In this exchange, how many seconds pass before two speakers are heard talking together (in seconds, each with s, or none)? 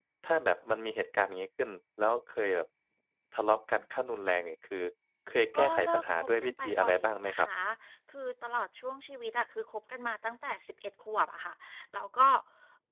5.6 s